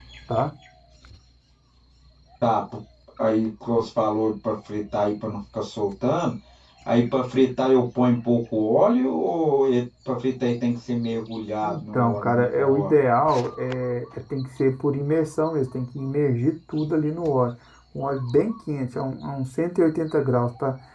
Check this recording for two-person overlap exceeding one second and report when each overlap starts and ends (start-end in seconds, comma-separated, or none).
11.6-12.9